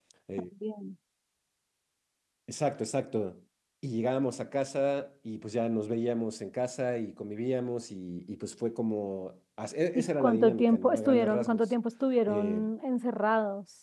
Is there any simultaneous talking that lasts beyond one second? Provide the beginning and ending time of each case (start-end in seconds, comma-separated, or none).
10.0-11.6